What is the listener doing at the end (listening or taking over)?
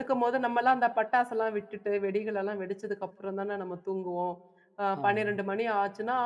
listening